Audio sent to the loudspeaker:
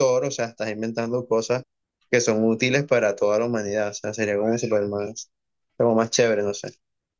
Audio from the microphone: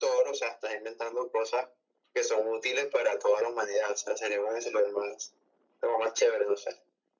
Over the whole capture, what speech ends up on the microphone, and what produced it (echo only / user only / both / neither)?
echo only